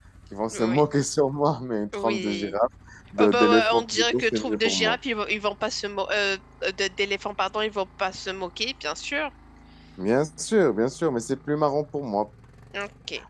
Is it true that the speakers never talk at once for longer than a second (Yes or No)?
No